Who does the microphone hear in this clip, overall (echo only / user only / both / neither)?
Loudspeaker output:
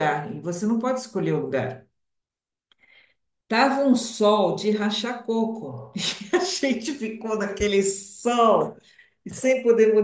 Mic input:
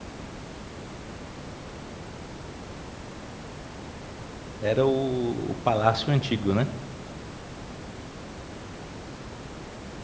user only